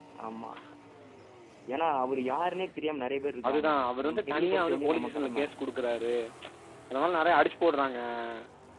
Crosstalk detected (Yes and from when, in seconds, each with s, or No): Yes, from 3.4 s